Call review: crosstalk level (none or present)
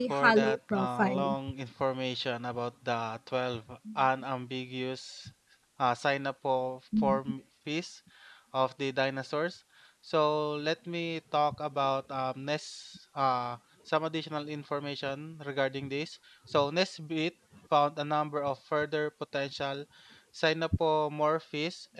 present